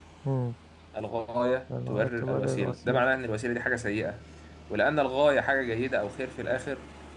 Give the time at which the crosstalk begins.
1.9 s

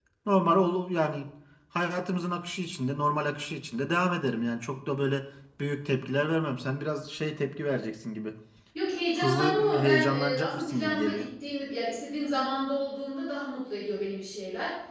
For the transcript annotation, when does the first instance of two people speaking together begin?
9.2 s

